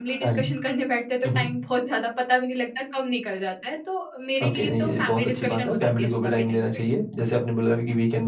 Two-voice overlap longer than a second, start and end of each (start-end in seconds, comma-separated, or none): 4.4-6.7